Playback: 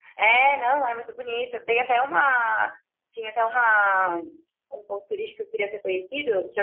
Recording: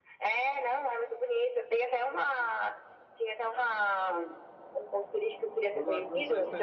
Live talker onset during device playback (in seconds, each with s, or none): 5.7 s